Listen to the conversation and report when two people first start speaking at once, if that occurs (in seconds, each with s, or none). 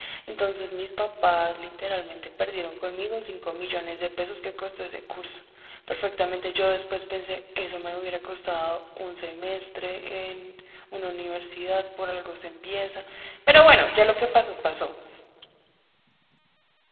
none